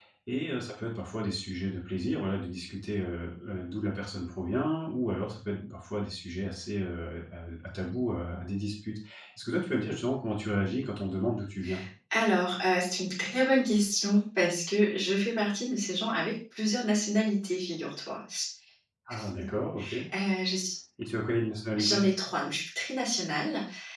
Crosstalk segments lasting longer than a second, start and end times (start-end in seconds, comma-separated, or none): none